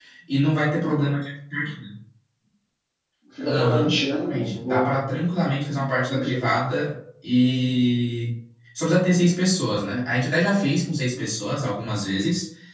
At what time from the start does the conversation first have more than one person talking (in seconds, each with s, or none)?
3.5 s